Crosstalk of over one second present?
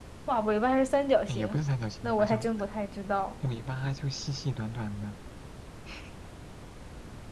No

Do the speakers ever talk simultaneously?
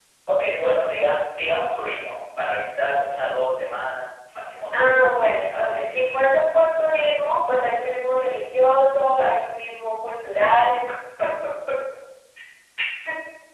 Yes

